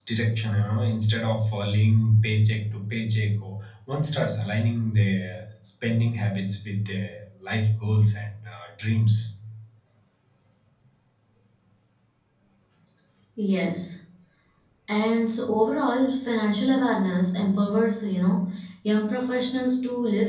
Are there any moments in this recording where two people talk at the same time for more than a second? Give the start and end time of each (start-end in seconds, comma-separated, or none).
none